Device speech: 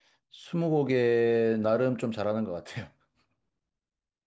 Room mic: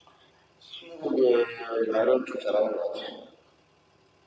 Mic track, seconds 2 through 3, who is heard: echo only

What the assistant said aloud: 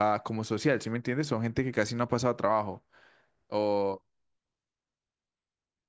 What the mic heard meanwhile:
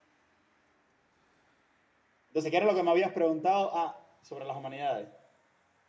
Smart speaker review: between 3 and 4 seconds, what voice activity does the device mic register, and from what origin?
user only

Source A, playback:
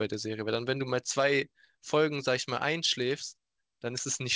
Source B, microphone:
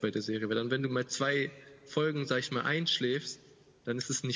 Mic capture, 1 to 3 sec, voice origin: echo only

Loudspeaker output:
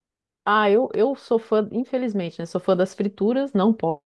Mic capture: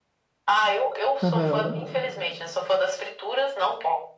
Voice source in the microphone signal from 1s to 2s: both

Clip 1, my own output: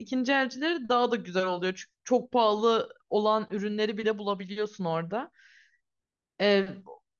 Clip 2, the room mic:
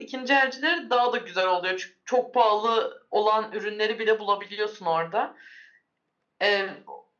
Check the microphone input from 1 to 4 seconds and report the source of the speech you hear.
echo only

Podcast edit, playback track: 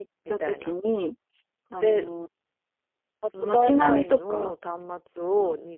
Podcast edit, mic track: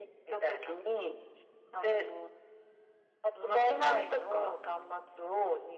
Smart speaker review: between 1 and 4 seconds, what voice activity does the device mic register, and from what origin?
echo only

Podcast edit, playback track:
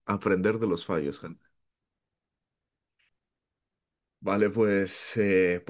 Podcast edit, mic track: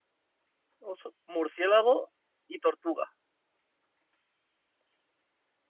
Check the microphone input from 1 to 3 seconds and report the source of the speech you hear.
user only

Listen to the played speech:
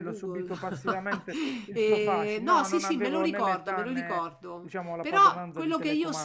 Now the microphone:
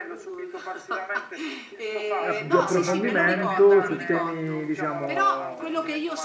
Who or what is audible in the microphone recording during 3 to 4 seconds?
both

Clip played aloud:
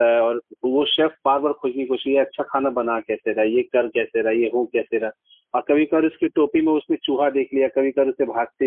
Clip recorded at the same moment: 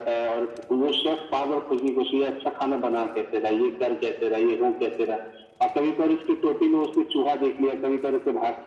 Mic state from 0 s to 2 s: echo only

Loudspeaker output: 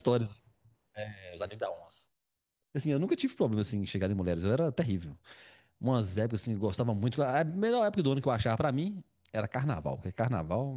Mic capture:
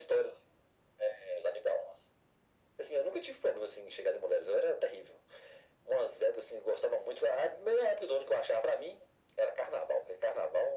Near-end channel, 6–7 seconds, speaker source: echo only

